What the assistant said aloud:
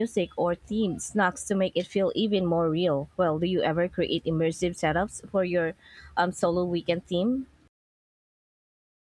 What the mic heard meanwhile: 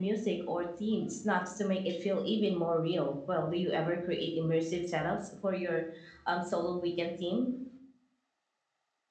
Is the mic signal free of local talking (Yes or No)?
Yes